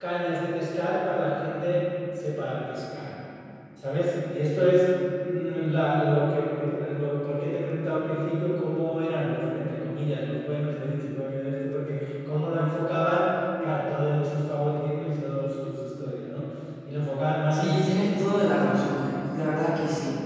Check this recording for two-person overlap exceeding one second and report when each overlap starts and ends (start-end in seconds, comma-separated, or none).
17.5-19.2